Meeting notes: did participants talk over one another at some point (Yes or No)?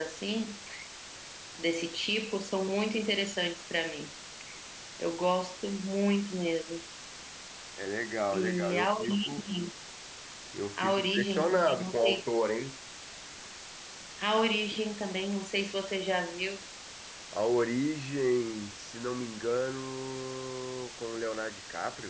Yes